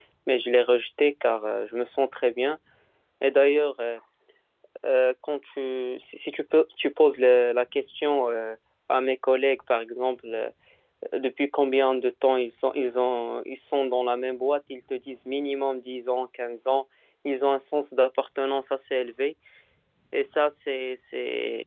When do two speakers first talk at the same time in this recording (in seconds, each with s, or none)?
none